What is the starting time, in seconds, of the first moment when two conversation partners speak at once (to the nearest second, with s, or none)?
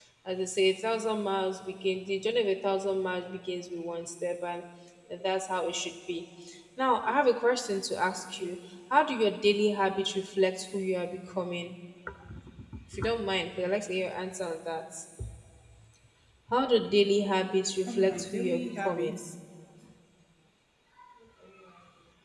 18 s